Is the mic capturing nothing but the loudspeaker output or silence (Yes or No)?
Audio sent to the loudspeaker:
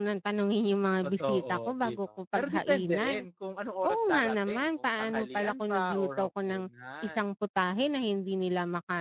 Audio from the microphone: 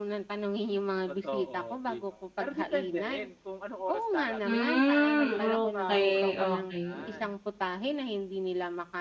No